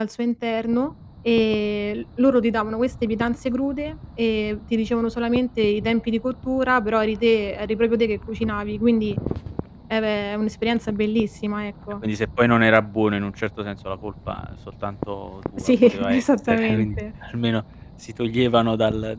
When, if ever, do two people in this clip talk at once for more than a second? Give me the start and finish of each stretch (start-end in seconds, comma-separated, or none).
15.6-16.9